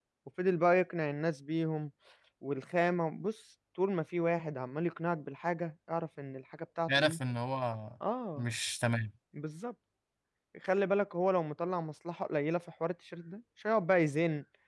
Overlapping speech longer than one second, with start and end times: none

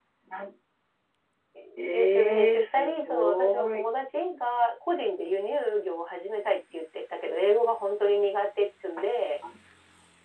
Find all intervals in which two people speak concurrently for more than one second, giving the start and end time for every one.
1.9-3.8

